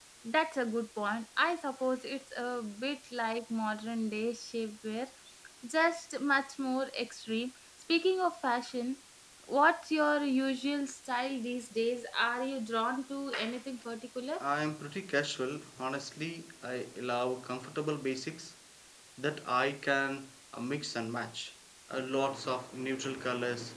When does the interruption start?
none

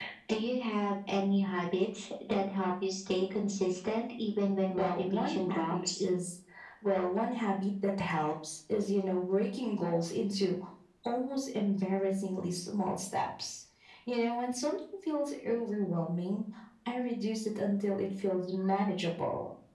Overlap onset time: 4.7 s

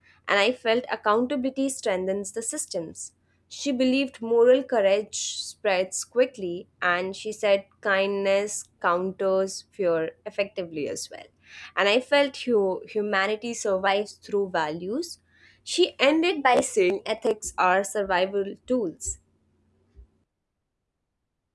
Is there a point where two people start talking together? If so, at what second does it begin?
none

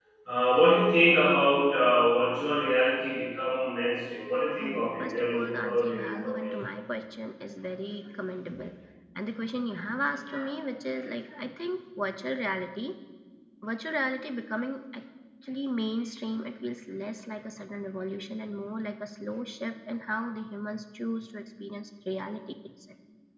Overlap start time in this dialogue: 4.5 s

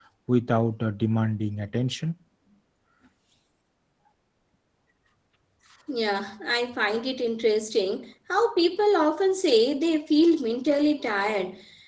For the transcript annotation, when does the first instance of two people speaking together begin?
none

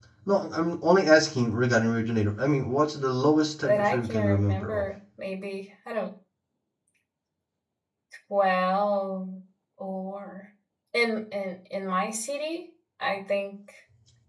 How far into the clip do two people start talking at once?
3.6 s

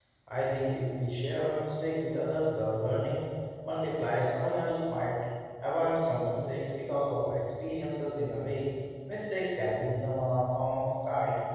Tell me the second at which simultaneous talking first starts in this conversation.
none

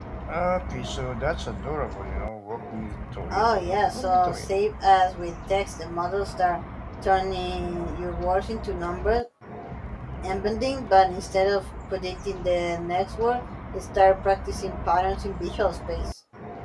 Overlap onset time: 3.3 s

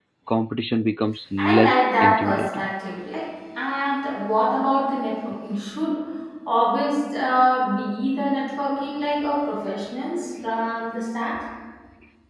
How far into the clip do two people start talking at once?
1.4 s

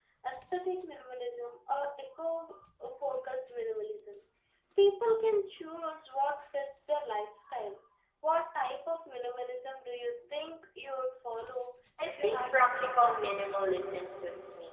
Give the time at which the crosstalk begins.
12.0 s

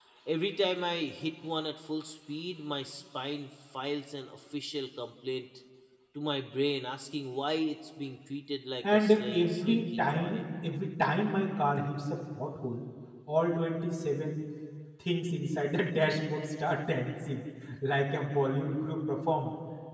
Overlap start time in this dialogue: 8.8 s

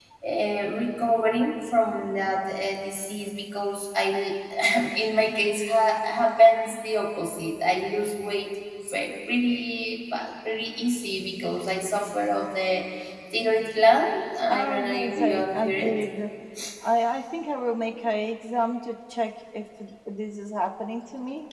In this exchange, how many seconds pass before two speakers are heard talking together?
14.5 s

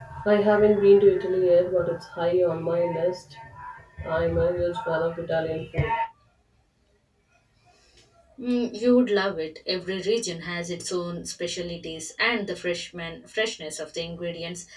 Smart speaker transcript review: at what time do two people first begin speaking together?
none

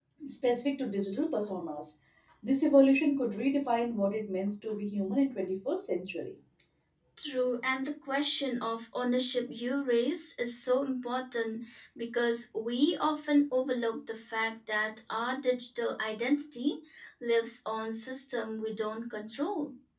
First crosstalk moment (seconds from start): none

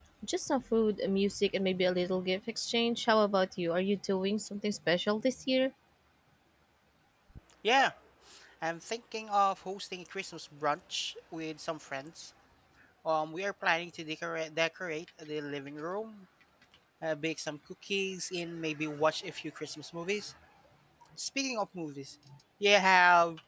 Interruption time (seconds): none

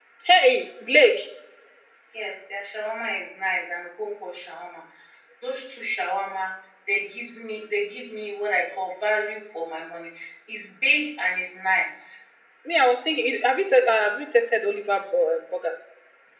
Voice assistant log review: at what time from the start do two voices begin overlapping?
none

